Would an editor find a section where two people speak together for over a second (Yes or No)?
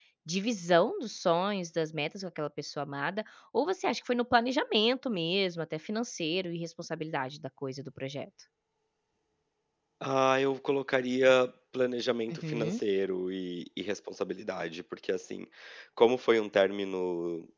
No